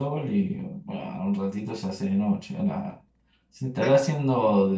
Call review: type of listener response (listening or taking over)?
listening